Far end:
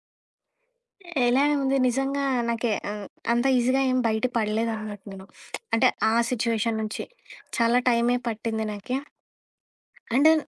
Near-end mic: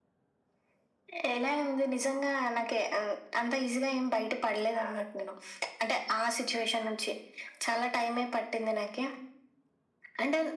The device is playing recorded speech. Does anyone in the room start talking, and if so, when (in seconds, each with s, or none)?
none